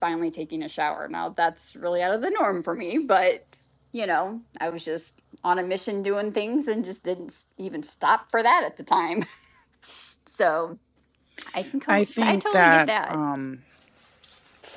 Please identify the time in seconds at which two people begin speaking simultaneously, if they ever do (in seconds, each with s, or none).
11.9 s